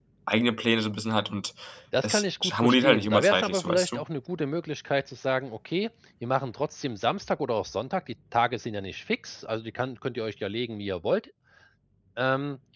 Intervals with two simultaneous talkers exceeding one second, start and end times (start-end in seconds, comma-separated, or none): 2.0-4.0